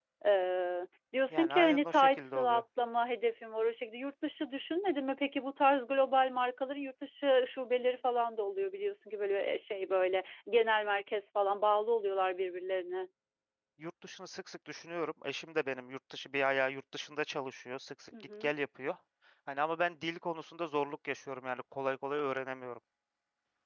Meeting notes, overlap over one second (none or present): present